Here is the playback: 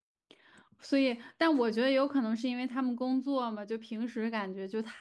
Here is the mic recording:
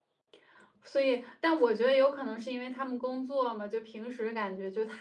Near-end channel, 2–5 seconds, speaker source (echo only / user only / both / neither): echo only